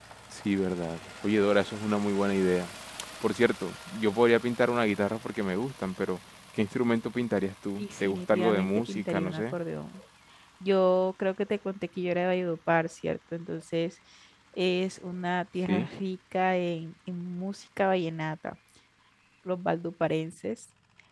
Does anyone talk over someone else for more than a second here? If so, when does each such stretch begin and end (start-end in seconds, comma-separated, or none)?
7.8-9.6